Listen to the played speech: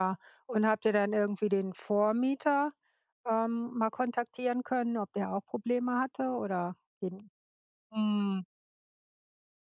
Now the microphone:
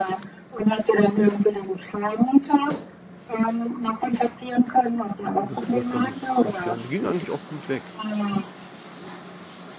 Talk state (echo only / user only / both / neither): both